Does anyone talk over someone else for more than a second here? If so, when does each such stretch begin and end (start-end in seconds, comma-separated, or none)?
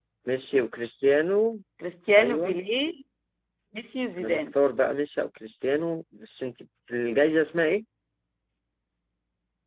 none